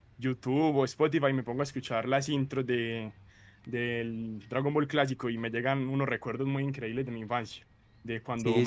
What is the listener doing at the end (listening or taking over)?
listening